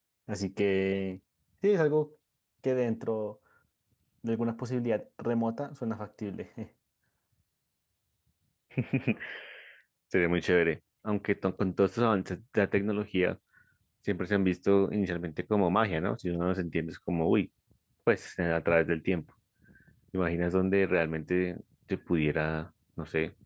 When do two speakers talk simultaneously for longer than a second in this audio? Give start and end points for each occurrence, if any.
none

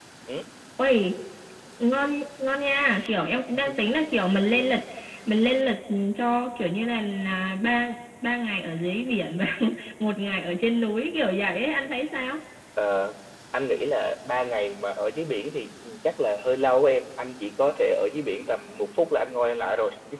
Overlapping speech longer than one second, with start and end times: none

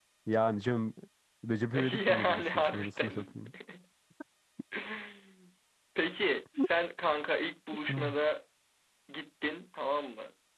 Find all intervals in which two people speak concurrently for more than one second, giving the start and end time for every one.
1.7-3.4

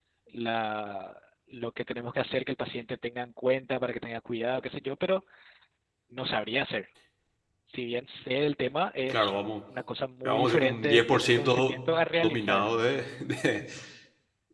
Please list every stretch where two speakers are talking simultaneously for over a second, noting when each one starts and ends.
10.2-11.8

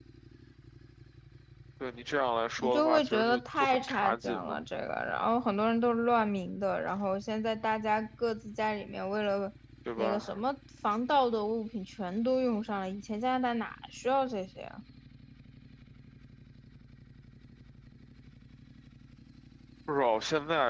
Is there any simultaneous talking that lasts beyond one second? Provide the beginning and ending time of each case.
2.6-4.6

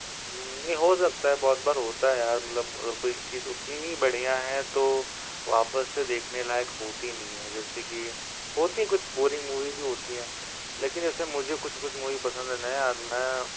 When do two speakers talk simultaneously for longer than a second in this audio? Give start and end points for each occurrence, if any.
none

